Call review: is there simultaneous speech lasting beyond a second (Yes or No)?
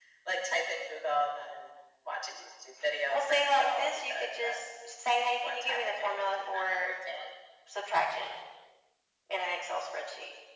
Yes